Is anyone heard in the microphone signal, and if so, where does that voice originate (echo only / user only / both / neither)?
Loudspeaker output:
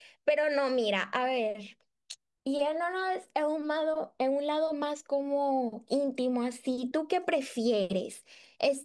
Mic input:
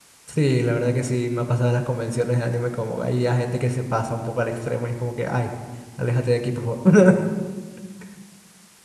user only